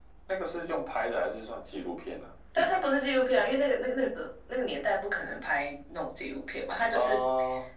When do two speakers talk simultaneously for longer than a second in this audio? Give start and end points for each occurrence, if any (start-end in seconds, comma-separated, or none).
none